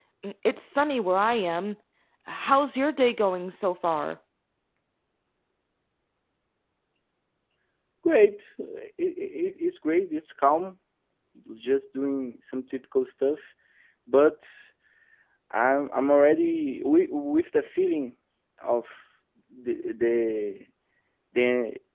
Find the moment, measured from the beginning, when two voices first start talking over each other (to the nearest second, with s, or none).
none